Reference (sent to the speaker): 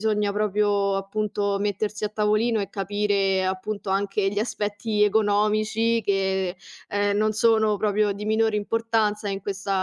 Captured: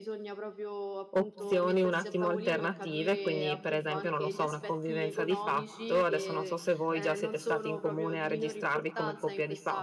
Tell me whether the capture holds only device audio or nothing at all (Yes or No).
No